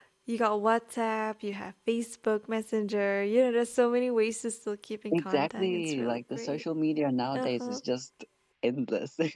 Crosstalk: present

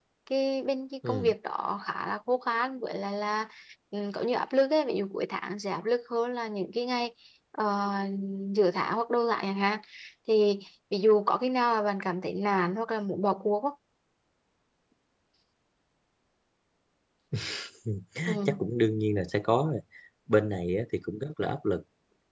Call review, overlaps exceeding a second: none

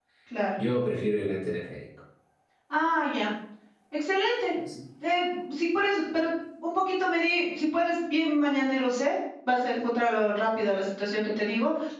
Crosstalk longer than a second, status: none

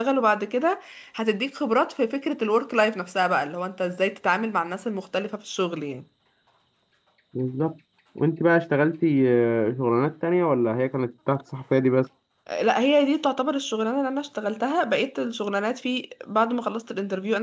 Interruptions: none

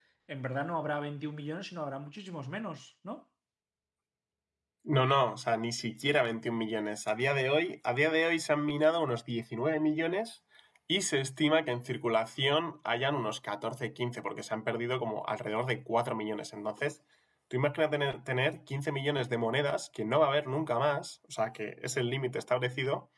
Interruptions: none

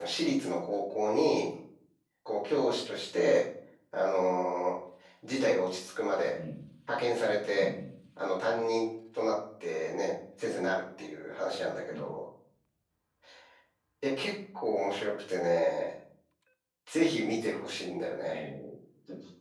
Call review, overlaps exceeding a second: none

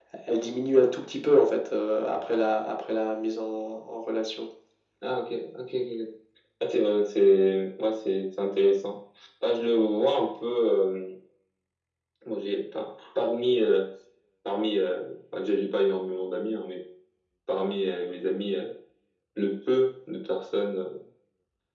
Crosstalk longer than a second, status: none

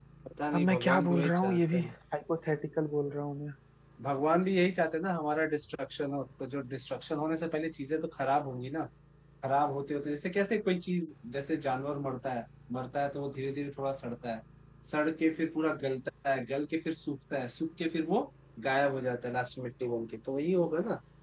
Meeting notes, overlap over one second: present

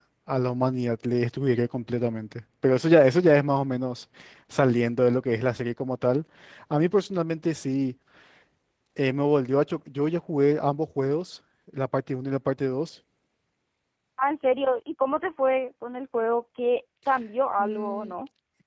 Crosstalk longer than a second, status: none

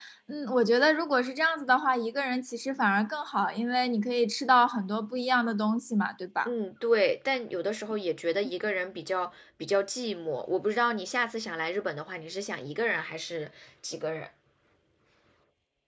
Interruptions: none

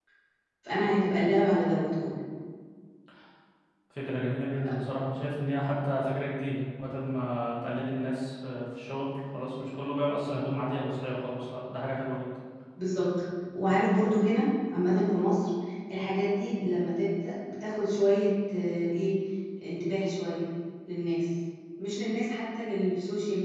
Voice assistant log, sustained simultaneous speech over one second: none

